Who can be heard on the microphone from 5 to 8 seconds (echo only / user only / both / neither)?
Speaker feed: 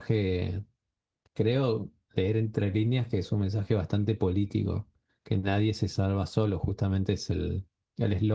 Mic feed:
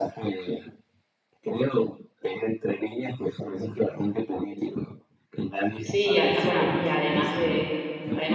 both